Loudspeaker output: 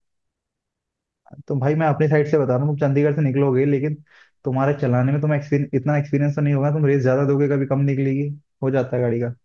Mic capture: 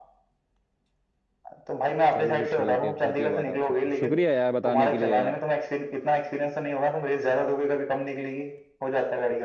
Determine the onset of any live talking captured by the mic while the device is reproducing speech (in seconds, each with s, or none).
2.1 s